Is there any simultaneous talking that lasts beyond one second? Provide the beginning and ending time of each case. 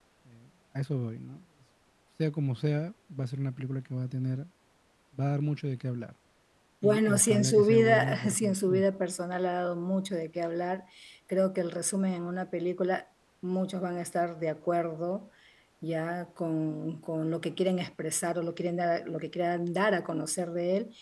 6.8-8.8

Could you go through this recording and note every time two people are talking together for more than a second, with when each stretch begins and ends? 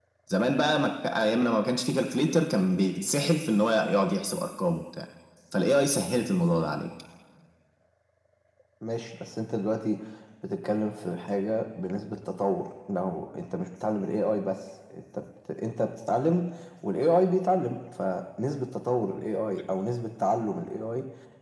none

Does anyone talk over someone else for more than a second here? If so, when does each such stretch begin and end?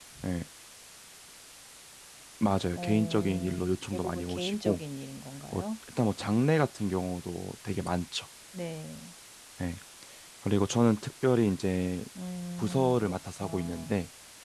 2.8-4.8, 12.6-13.9

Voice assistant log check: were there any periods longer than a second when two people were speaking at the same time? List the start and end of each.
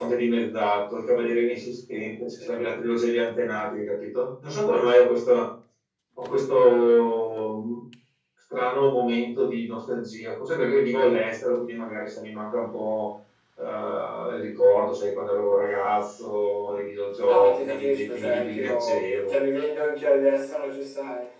17.2-19.3

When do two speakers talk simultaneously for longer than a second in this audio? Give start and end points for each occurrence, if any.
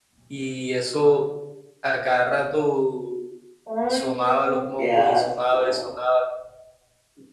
3.9-5.9

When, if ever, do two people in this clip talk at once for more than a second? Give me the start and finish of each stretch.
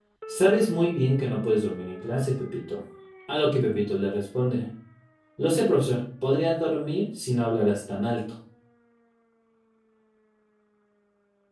none

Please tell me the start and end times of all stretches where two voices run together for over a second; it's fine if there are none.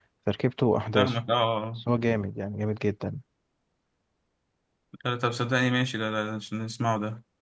none

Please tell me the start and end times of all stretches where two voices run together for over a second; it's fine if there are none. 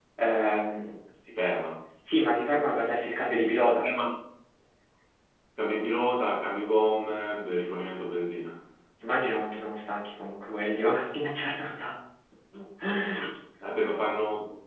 none

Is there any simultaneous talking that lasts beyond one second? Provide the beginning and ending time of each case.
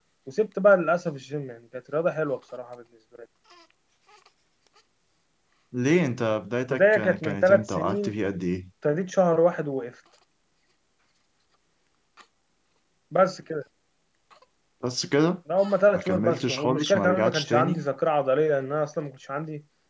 6.7-8.2, 15.9-17.8

